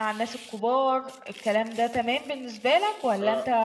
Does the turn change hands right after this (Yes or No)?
Yes